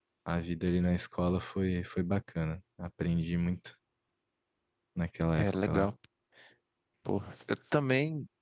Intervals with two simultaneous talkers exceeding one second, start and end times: none

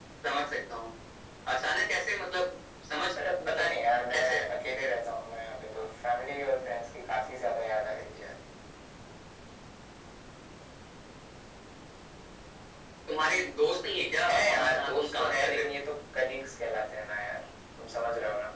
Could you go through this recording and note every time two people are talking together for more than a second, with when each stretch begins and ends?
14.2-15.7

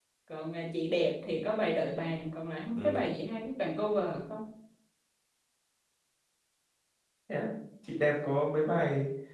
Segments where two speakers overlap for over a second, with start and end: none

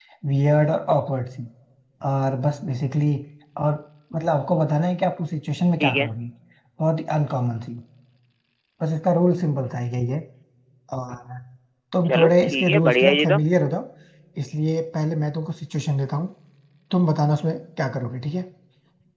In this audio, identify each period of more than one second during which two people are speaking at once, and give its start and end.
12.1-13.4

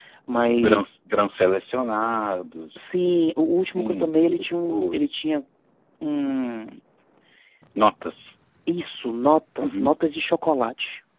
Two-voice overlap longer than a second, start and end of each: 3.6-5.2

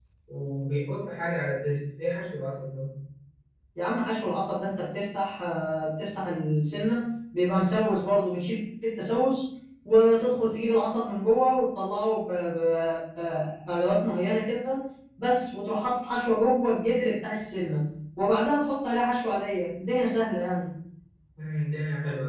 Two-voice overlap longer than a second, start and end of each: none

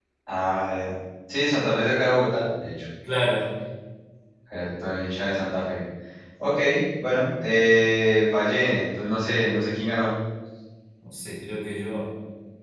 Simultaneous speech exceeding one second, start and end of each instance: none

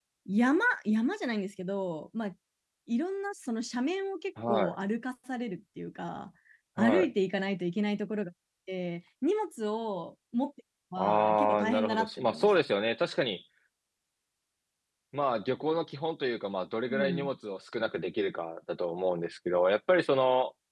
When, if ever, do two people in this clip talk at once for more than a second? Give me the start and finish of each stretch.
11.0-12.6

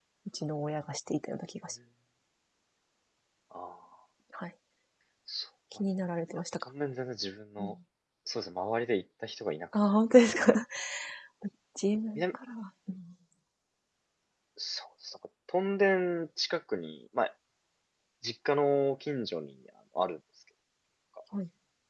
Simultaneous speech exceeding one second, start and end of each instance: none

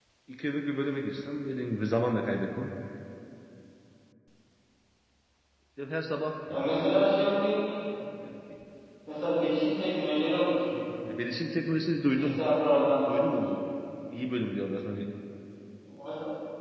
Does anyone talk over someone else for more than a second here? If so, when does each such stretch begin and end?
none

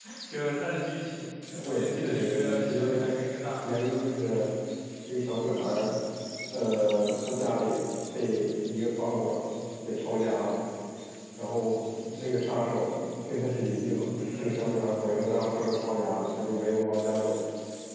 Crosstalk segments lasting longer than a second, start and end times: 1.6-3.1

